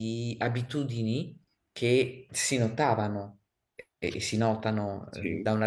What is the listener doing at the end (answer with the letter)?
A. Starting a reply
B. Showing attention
B